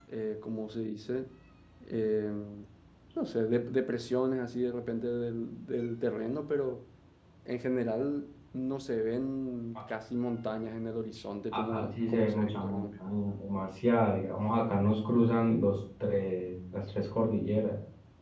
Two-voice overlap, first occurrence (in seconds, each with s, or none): 11.5 s